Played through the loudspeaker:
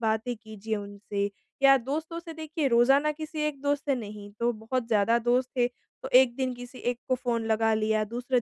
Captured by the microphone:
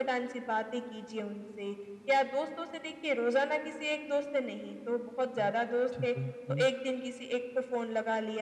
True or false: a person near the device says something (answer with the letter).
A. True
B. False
A